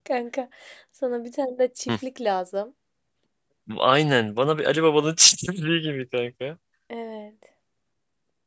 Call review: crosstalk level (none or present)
none